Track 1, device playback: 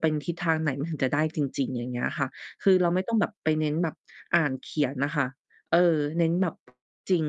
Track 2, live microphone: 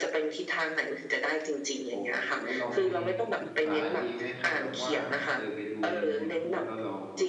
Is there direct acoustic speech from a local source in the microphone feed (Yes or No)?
Yes